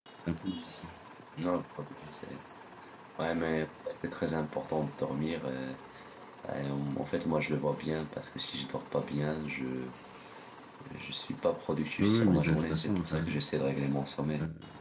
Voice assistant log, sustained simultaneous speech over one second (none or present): present